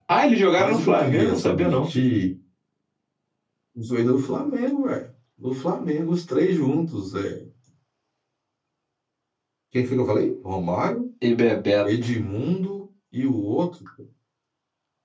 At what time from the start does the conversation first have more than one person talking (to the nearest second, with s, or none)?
1 s